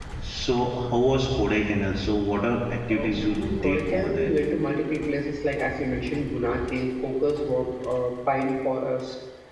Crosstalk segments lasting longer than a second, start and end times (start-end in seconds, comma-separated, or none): 2.9-4.4